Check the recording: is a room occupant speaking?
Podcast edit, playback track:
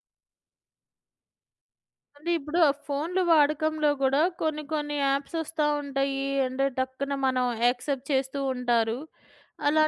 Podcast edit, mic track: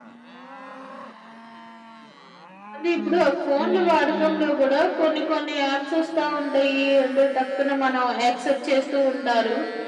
Yes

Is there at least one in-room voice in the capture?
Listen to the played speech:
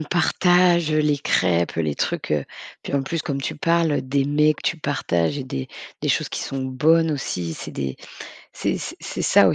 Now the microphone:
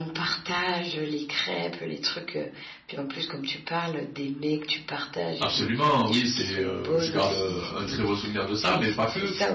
Yes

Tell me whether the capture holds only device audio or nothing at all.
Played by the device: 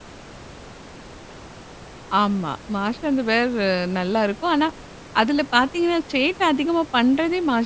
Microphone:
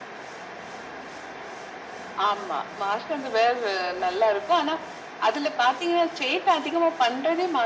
Yes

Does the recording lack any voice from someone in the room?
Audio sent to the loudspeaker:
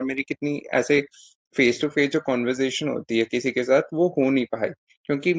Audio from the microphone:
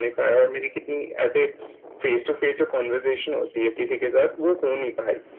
Yes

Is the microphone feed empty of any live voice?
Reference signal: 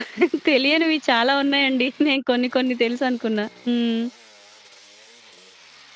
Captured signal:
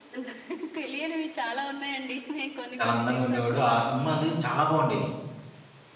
No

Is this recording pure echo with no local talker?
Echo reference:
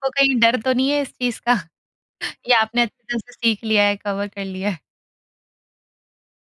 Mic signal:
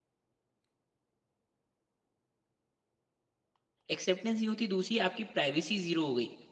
No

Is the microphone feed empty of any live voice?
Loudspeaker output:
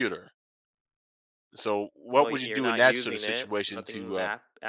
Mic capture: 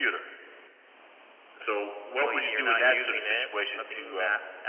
Yes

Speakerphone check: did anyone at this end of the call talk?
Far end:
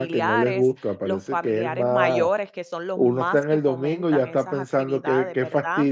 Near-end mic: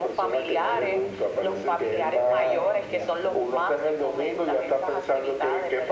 Yes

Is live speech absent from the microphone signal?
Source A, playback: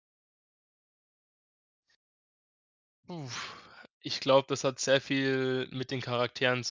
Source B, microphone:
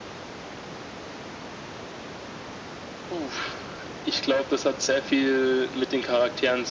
Yes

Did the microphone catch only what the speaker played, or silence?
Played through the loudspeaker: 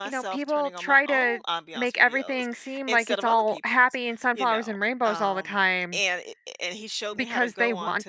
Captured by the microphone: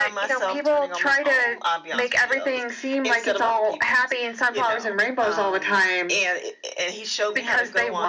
Yes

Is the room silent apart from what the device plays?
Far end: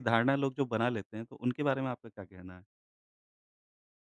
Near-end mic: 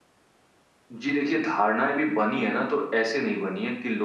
No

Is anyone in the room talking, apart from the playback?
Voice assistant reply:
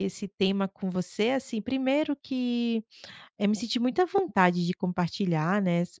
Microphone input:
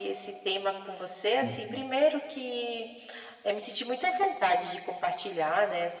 Yes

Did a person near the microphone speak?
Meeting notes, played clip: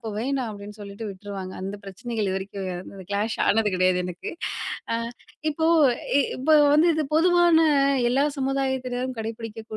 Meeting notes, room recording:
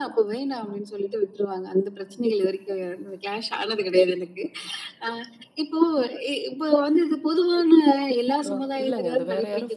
Yes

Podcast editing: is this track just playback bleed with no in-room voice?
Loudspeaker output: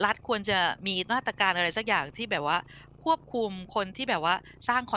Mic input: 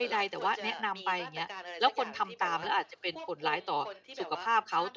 No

